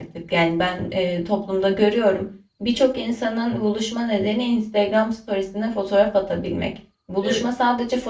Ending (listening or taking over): listening